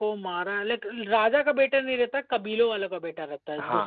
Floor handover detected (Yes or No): Yes